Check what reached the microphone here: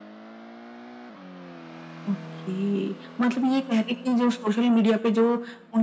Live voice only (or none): none